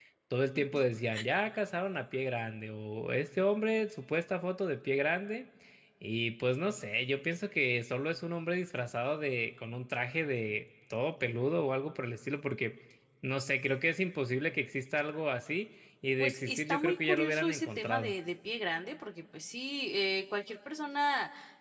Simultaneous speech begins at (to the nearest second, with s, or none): 16 s